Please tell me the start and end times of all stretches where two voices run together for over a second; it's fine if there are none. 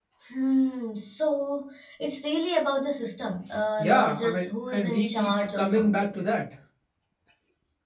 3.8-6.2

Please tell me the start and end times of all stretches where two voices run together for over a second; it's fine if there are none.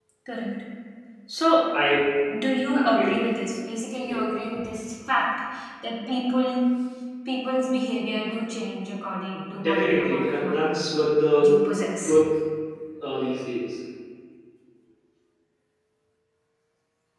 9.6-10.8

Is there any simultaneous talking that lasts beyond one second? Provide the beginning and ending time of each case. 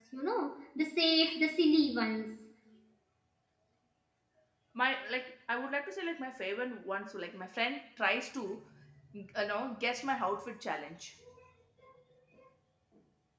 none

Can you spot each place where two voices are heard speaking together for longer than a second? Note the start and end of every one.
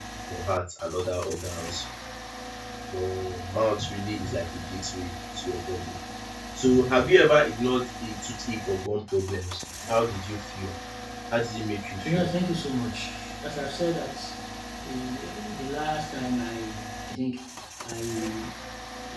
none

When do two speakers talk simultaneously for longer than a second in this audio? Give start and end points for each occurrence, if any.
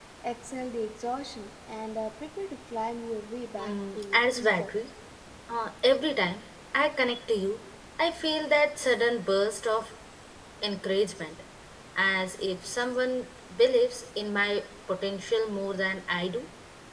3.6-4.8

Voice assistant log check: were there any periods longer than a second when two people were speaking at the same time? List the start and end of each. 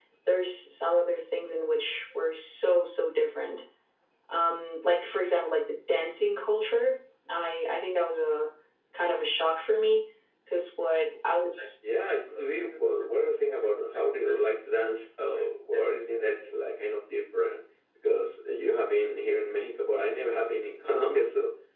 none

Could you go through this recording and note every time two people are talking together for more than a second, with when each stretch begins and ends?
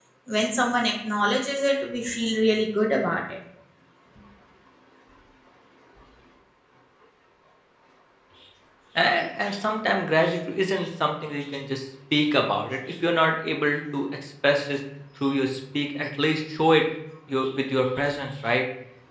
none

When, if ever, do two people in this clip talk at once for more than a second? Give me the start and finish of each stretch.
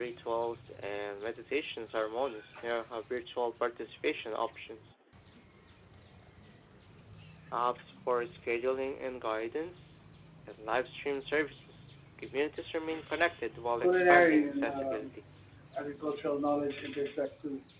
13.8-15.1

